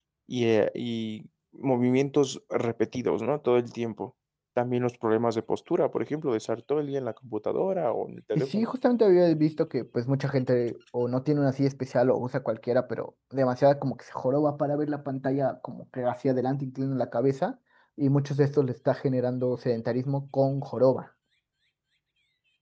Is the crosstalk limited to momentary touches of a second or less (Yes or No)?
Yes